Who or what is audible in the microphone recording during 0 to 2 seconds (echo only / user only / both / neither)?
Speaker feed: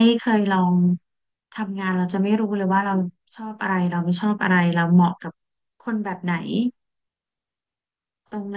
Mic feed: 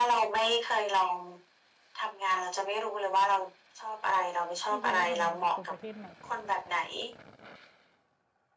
echo only